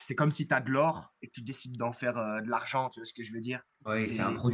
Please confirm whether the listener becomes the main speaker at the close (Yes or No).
Yes